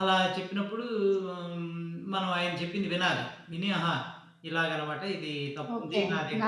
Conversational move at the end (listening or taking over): taking over